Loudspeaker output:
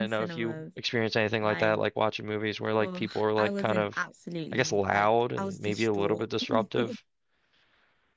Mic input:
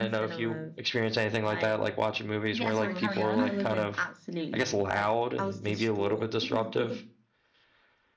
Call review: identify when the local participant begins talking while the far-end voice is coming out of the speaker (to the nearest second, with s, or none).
3 s